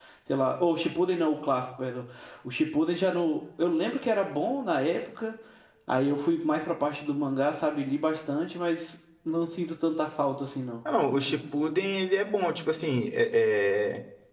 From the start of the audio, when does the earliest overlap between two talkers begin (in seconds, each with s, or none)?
none